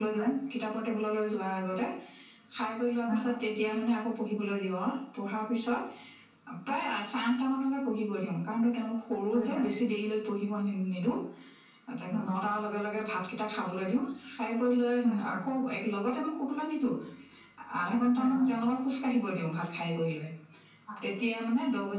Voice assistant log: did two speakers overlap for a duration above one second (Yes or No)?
No